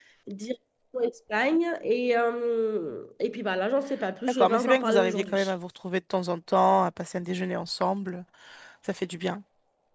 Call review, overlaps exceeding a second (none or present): present